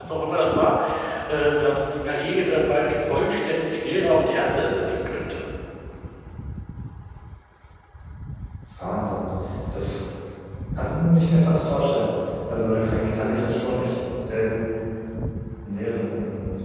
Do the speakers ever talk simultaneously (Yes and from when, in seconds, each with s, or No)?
No